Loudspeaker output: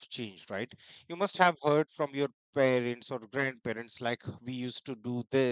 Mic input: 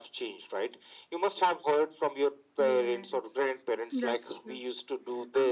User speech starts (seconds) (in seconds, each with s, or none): 2.6 s